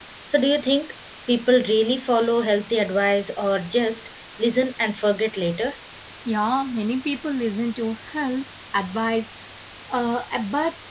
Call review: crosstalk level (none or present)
none